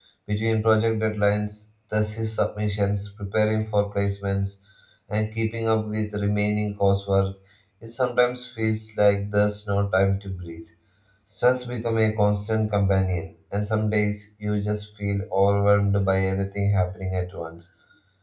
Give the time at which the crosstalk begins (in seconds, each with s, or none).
none